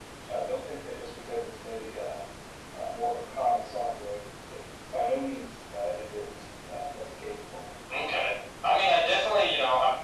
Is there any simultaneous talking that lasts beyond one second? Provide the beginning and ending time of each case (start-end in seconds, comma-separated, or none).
none